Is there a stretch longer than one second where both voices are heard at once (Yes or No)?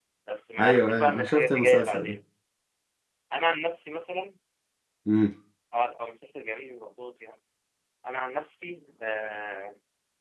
Yes